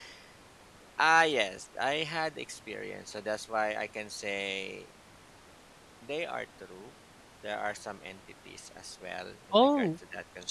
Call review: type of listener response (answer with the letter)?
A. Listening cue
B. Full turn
B